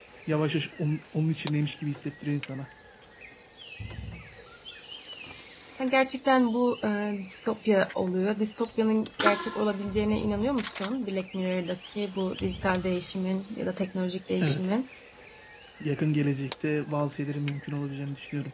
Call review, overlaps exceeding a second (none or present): none